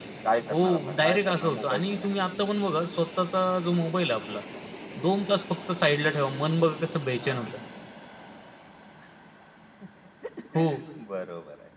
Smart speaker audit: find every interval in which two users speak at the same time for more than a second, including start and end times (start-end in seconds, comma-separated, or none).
0.6-2.2